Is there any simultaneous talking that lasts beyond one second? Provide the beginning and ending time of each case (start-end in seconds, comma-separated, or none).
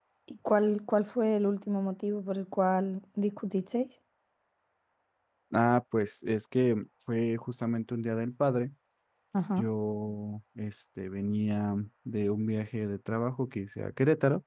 none